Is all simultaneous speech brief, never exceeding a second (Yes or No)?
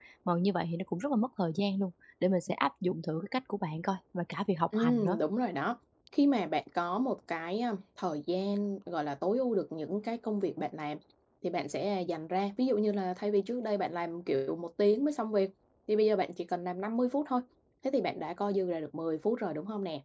Yes